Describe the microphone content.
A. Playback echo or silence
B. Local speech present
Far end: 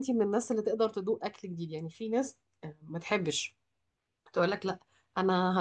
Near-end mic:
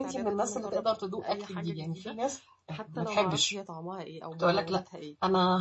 B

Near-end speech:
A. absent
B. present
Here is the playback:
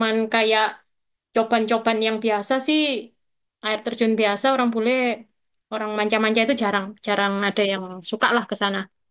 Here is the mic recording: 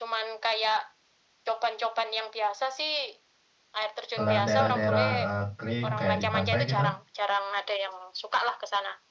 B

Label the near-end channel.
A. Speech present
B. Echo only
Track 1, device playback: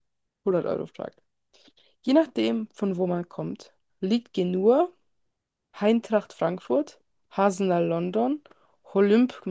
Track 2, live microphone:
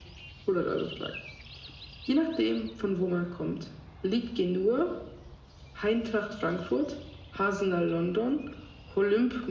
B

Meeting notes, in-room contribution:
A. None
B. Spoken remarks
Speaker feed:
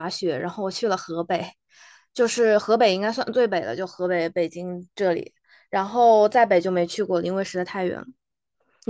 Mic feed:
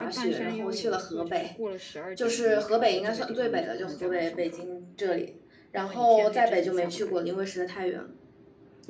B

